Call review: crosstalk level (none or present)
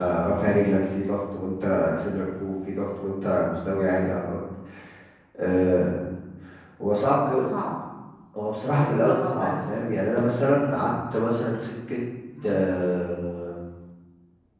present